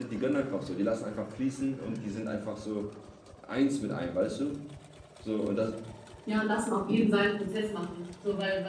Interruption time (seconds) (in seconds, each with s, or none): none